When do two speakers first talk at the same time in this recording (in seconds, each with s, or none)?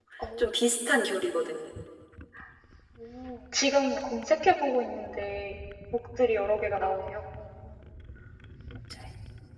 none